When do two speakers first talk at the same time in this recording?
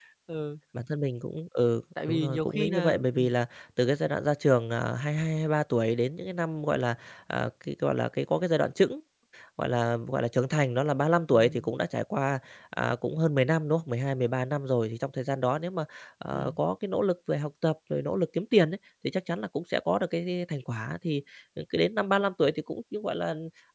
2 s

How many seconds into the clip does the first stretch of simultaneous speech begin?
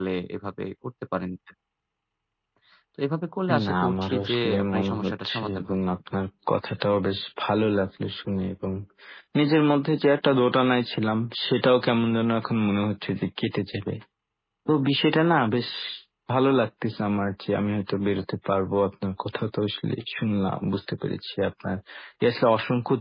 4 s

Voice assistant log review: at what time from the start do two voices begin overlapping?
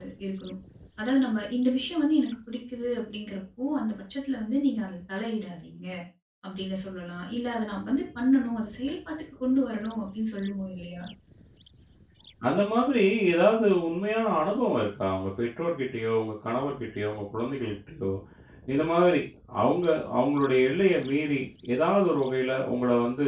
none

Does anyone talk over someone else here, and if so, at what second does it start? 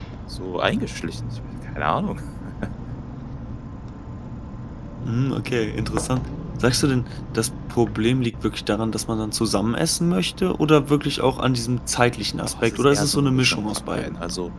13 s

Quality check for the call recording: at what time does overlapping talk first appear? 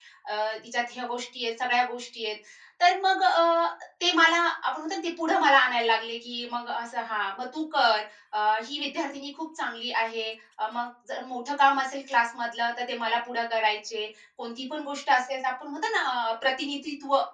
none

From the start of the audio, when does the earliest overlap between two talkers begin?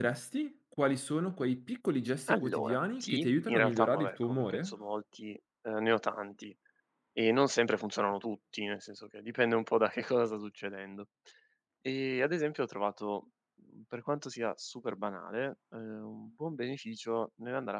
2 s

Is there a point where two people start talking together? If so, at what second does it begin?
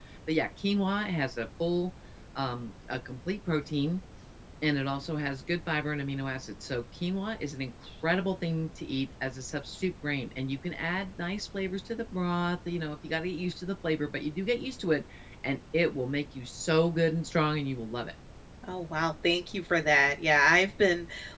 none

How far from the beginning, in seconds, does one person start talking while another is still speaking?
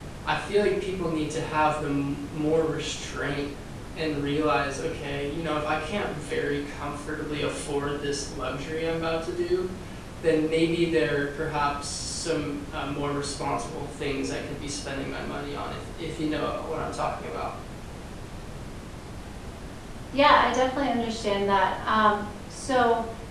none

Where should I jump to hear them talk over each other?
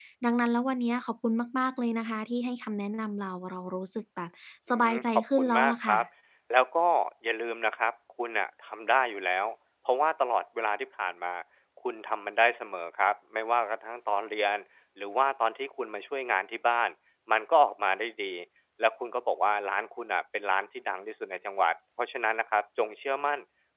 5 s

